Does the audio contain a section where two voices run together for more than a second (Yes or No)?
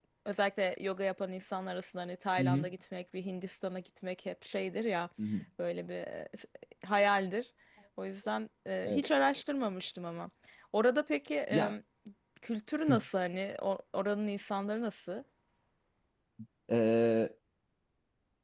No